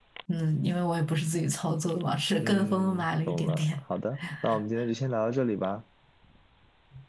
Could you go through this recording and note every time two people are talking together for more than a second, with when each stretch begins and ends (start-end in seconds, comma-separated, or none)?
2.4-3.7